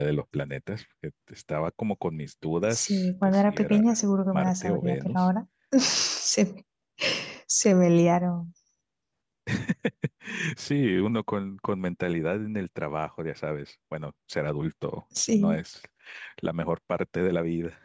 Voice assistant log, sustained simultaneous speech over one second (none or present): present